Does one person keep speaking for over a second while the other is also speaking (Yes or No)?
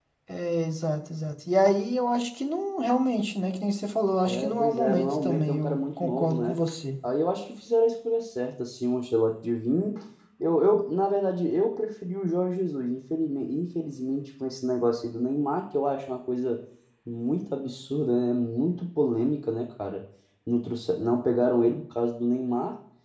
Yes